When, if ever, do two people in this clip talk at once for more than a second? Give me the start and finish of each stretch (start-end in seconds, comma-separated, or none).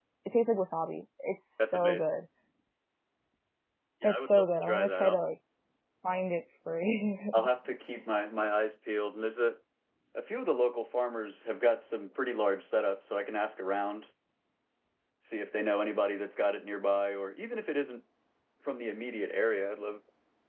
4.0-5.2